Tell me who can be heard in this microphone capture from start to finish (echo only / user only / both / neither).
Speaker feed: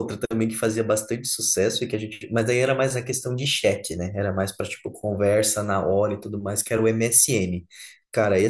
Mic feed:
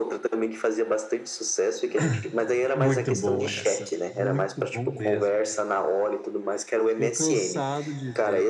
both